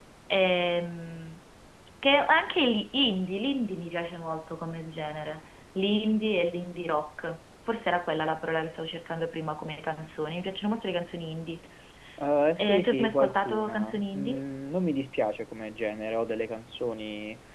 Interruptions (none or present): present